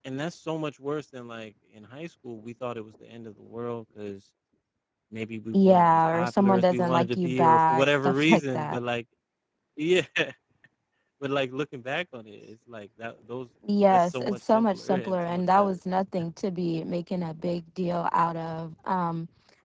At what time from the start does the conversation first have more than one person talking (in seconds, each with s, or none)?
5.5 s